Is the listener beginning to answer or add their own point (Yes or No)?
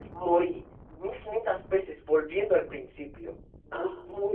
No